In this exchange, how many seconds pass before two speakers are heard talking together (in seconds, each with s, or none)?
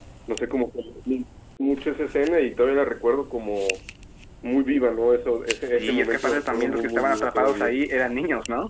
5.7 s